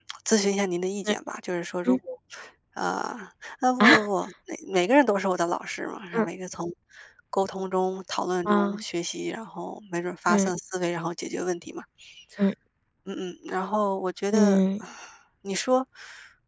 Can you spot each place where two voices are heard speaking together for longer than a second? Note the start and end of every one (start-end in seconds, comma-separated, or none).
none